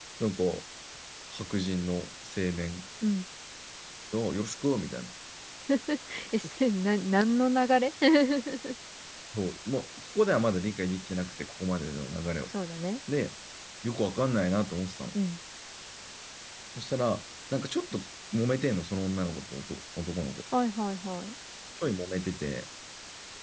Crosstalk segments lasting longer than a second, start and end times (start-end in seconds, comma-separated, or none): none